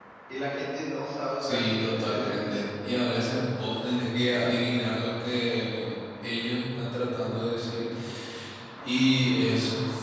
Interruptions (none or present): present